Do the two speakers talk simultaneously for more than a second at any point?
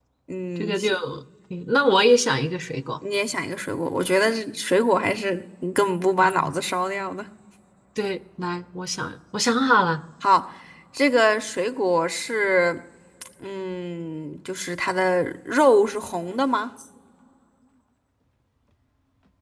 No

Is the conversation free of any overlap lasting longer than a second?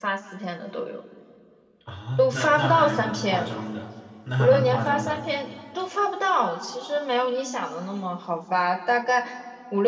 No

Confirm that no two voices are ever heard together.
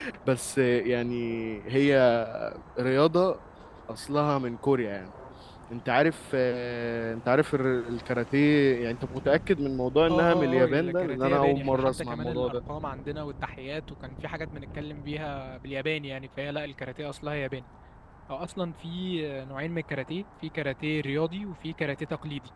No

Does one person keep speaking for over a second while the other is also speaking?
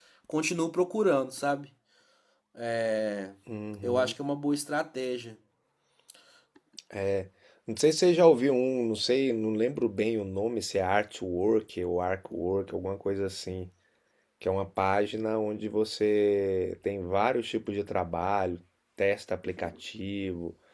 No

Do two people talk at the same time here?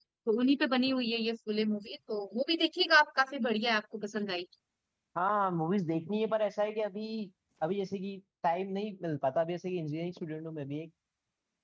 No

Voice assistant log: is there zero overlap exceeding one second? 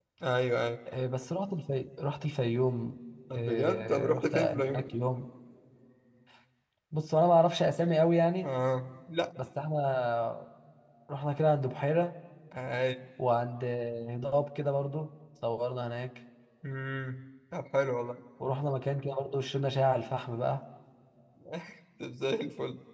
No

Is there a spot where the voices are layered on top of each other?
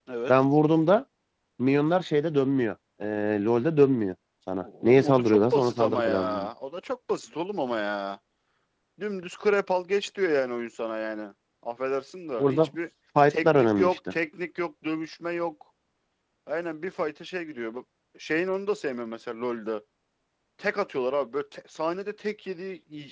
Yes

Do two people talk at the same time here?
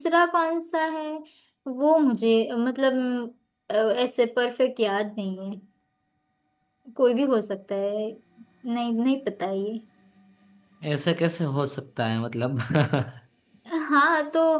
No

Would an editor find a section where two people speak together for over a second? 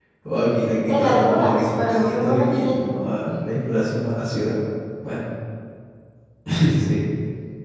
Yes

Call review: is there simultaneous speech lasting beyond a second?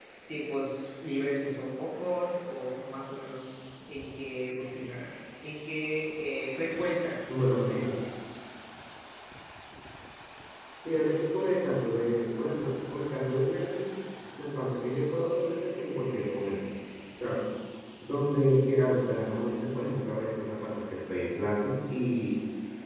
No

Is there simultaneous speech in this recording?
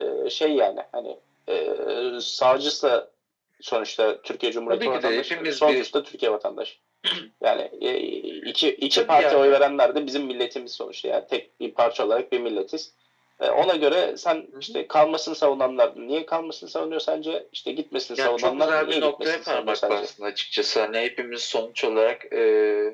Yes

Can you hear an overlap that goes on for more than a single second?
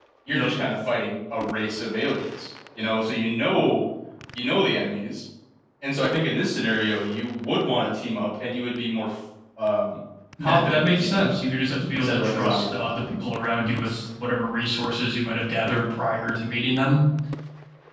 Yes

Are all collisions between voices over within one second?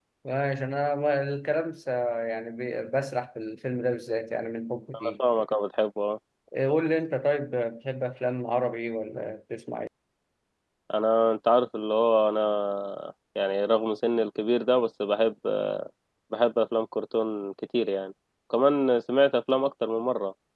Yes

